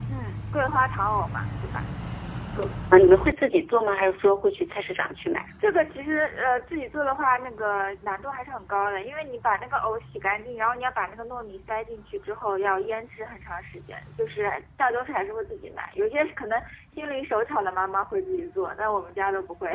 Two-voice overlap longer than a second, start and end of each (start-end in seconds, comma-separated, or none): none